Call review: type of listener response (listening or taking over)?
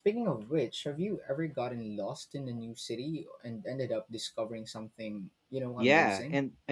taking over